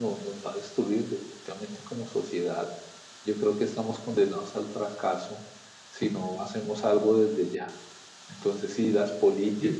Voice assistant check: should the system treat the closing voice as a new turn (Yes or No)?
No